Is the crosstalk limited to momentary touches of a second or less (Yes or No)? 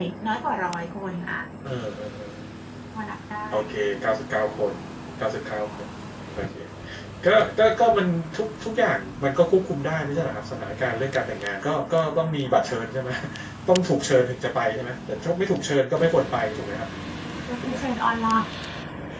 Yes